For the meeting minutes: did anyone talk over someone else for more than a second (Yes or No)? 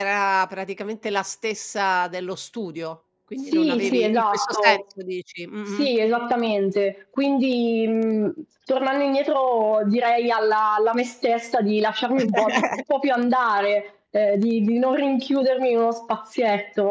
Yes